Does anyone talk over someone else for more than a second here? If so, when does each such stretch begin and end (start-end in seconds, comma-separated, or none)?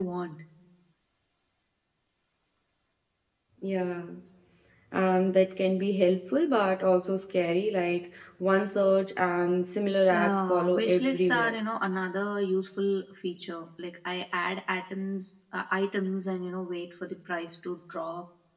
10.1-11.6